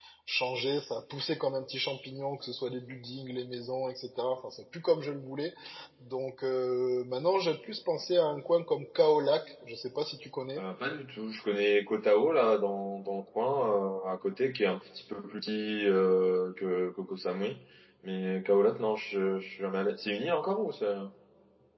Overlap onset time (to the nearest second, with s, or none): none